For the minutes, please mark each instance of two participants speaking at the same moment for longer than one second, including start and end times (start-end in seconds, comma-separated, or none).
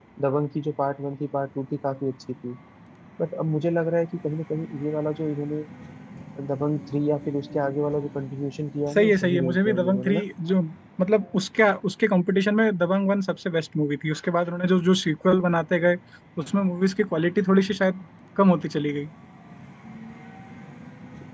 9.0-10.2